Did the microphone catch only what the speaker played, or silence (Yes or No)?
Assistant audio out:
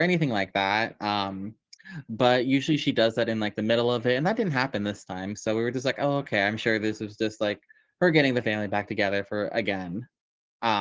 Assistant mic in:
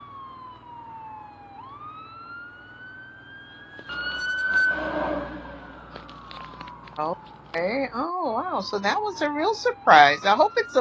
No